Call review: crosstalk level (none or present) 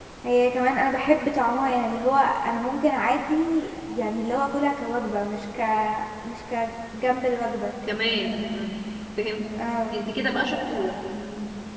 none